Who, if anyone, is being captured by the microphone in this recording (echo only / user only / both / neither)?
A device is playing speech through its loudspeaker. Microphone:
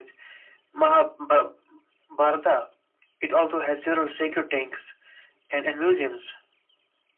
echo only